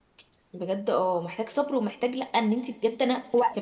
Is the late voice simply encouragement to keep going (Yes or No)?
Yes